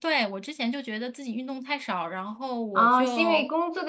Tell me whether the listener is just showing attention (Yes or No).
No